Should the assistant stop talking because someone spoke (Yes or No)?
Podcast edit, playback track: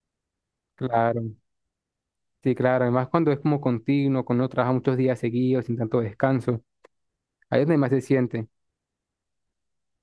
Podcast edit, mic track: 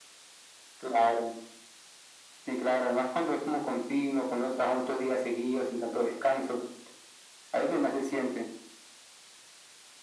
No